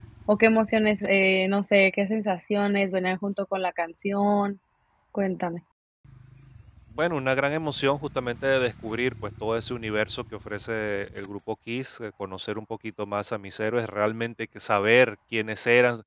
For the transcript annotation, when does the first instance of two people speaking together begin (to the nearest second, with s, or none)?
none